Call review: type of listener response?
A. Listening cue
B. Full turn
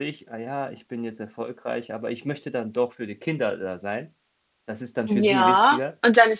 B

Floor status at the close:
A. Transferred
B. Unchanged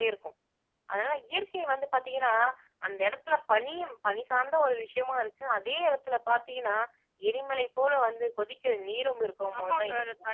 A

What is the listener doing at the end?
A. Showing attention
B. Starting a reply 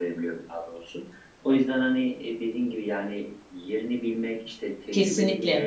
A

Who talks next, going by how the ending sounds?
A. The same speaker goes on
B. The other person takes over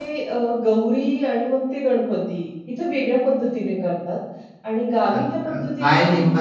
B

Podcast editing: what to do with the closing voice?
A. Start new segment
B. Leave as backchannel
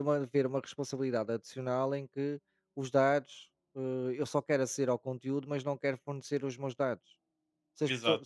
B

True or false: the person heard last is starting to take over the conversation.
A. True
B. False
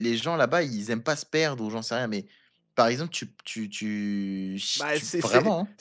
A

